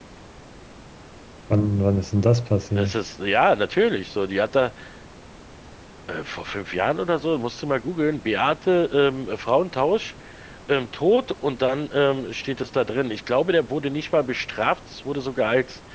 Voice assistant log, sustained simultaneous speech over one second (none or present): none